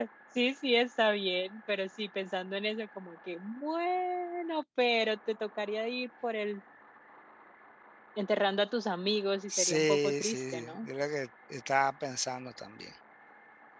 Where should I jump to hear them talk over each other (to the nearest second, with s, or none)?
10 s